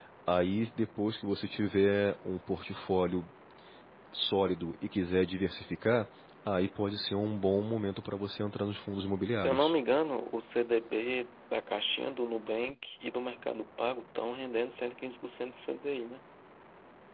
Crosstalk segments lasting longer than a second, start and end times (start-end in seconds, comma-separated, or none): none